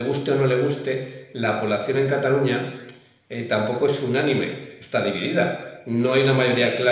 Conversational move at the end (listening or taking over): listening